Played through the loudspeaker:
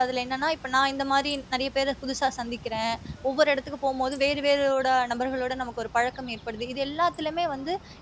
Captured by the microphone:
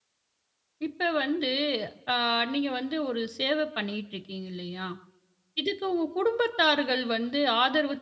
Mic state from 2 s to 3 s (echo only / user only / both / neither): user only